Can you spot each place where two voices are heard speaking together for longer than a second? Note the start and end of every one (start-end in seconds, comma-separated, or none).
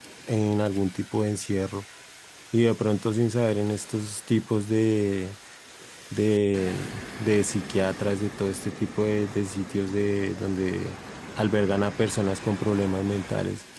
none